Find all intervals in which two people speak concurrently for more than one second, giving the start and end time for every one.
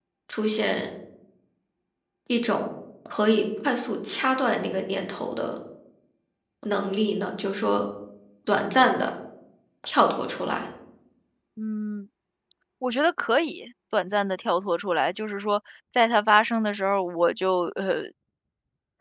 none

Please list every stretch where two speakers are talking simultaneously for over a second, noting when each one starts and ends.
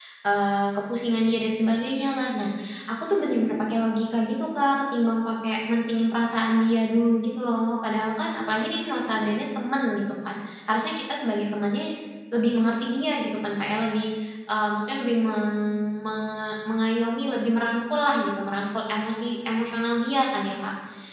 none

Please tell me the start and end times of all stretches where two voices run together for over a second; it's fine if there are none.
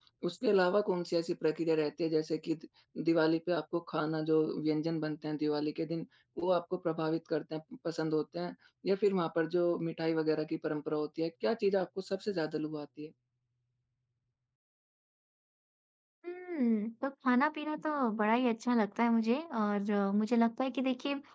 none

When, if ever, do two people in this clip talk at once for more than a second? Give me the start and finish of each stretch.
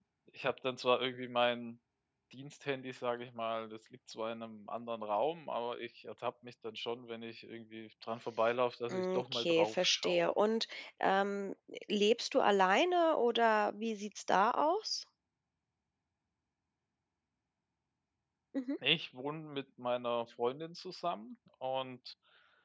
8.9-10.3

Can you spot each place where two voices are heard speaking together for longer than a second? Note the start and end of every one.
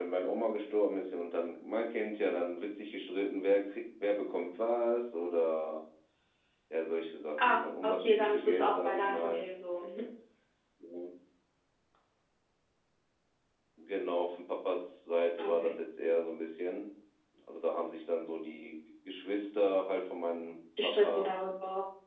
7.4-9.4

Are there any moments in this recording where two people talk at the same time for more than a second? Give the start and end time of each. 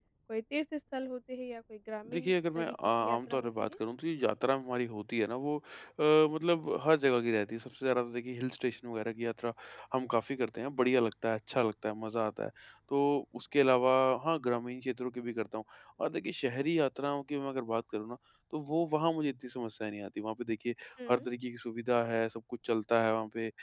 2.1-3.7

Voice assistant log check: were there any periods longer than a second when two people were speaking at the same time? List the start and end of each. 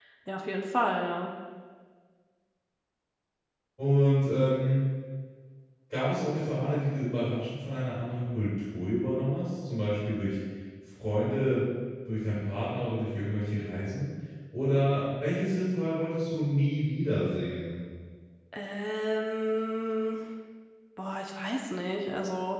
none

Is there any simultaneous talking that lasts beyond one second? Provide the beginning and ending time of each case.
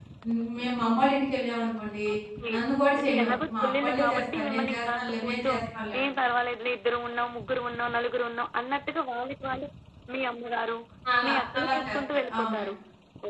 3.0-5.5, 11.2-12.6

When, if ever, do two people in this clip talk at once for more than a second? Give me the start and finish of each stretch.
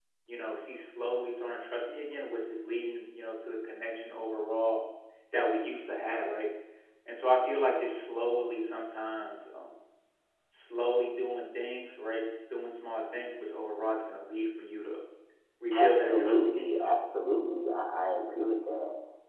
15.7-16.9

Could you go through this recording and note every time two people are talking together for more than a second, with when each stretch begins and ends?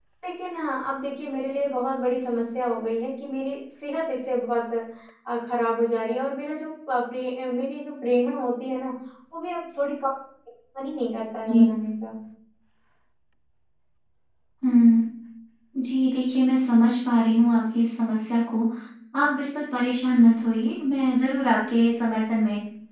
none

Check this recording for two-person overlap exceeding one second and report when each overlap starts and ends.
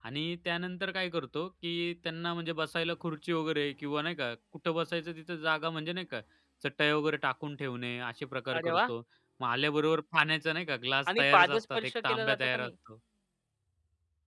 11.1-12.7

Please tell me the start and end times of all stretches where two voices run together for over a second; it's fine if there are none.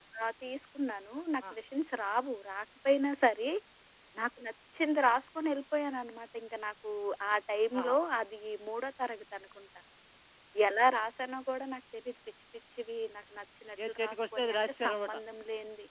13.9-15.2

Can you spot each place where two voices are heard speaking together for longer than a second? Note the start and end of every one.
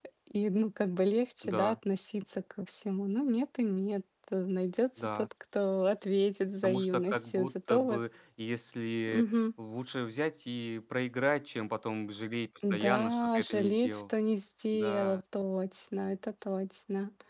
6.6-8.0, 12.7-14.0

